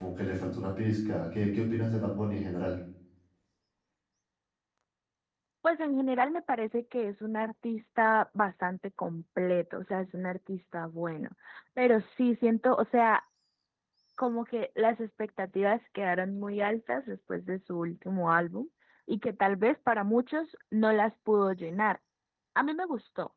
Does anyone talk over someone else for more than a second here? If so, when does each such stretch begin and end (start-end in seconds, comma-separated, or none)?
none